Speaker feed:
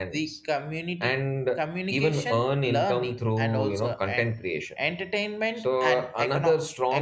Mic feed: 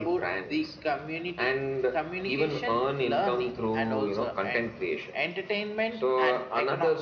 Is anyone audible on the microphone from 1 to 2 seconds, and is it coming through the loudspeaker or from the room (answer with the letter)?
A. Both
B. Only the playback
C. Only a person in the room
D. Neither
B